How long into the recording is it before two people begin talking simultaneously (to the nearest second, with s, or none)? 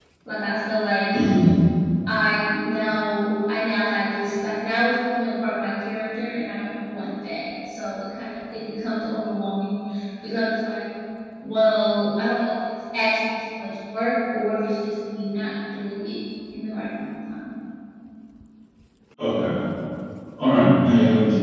none